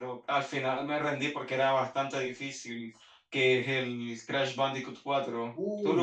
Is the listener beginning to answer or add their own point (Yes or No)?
Yes